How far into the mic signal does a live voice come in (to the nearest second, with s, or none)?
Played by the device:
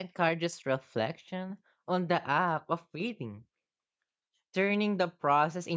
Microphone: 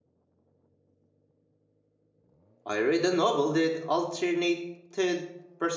3 s